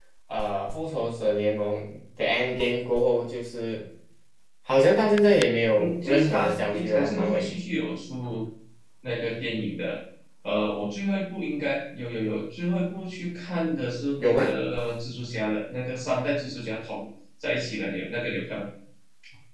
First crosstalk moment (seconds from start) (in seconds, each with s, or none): 5.8 s